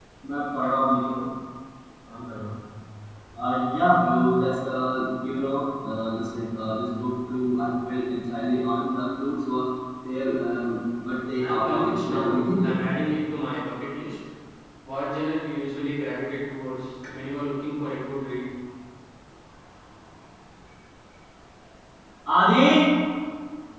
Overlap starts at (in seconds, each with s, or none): 11.4 s